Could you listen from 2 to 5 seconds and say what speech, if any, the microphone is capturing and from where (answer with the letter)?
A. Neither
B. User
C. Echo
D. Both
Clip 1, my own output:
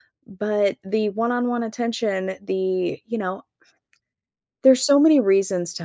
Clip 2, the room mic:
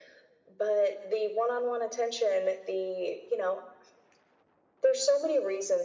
C